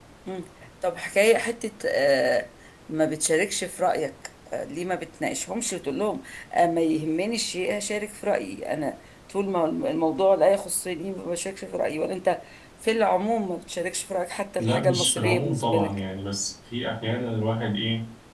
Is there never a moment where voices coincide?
No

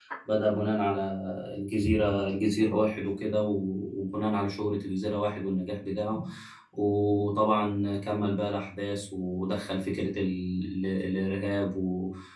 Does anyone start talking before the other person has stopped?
No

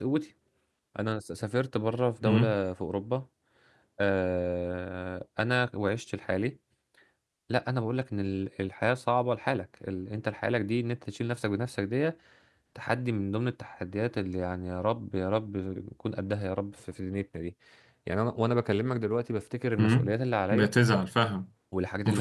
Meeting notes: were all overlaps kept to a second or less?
Yes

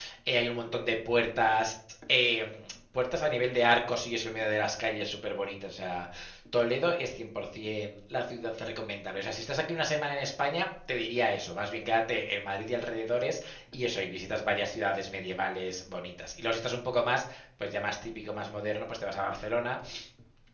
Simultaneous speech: No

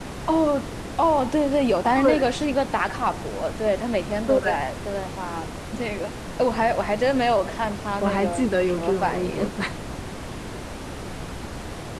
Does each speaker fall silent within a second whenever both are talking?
No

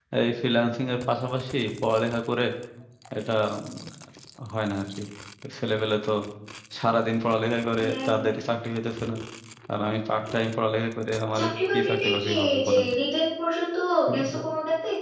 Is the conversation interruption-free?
No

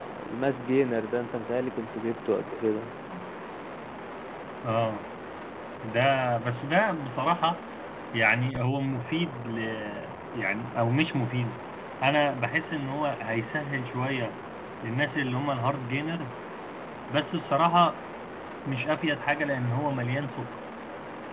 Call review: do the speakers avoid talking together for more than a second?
Yes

